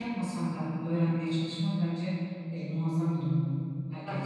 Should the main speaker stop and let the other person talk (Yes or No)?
Yes